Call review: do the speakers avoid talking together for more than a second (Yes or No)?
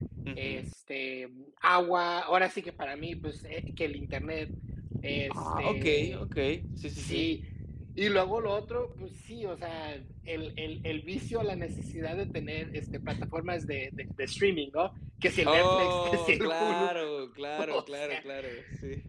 No